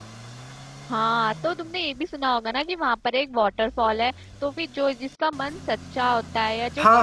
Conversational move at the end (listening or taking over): taking over